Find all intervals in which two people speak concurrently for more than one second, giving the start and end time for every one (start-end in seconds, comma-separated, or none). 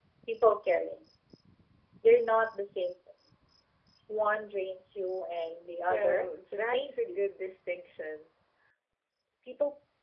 5.9-7.2